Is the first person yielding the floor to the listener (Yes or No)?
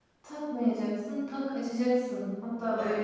Yes